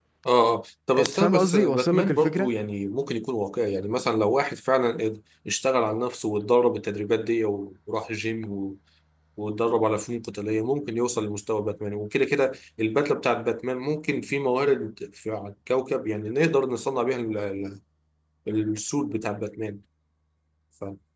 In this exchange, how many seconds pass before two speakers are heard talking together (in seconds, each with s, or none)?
0.9 s